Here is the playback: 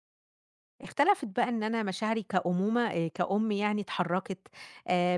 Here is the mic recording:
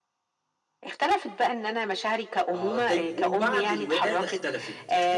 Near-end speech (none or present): present